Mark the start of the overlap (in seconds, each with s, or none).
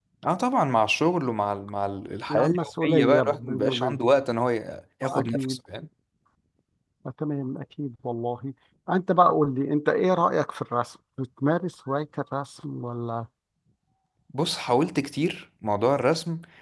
2.3 s